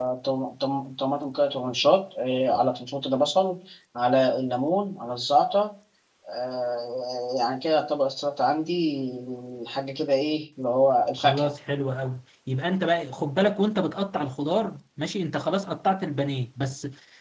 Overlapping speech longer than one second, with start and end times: none

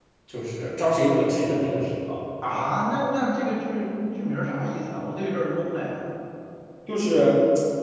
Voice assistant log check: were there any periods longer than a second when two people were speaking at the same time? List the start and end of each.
none

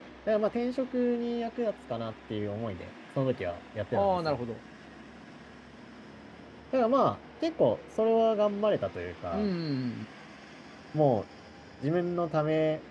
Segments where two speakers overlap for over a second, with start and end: none

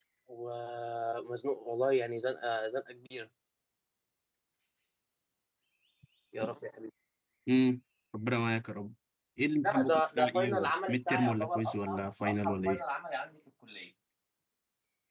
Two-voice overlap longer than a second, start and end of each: 9.6-12.8

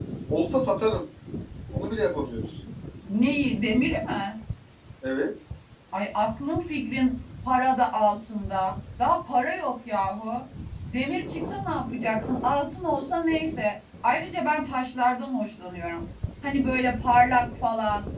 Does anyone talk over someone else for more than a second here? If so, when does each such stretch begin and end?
none

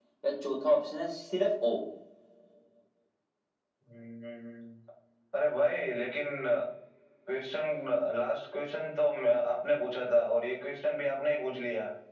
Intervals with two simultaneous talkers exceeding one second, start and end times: none

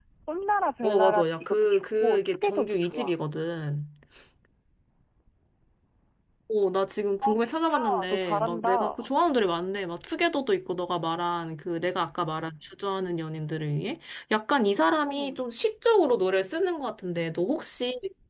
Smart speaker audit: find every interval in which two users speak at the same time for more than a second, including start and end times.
0.8-3.1, 7.2-9.1

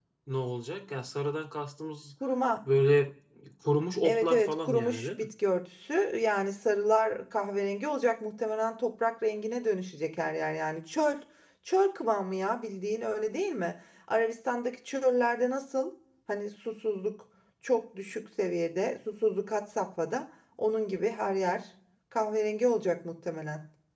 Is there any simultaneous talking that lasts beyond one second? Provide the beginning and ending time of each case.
4.0-5.2

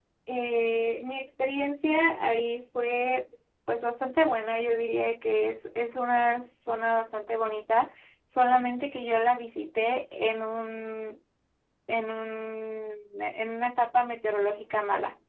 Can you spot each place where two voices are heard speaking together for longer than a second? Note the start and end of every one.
none

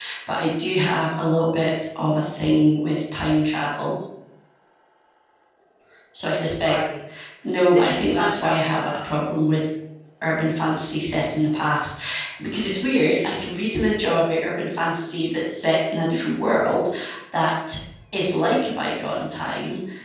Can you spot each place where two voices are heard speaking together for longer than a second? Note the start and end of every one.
7.7-9.0

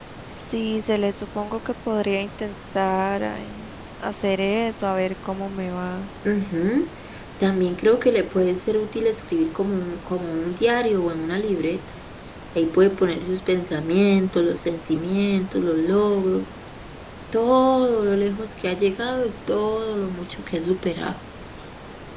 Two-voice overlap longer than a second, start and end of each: none

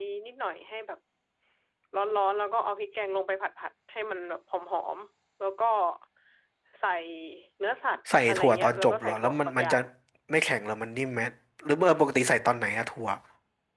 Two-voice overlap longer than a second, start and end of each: 8.2-9.8

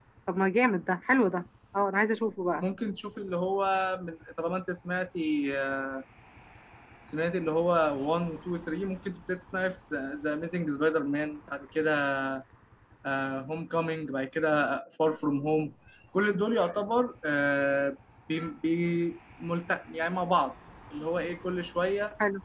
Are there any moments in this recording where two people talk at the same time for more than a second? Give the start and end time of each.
none

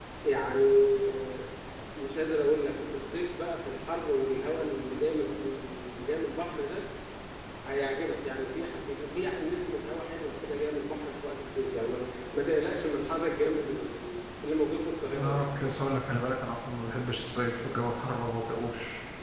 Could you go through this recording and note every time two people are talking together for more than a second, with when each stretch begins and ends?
none

